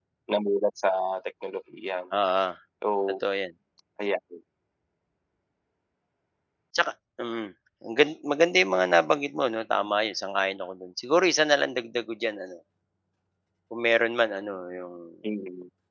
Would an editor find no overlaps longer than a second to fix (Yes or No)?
Yes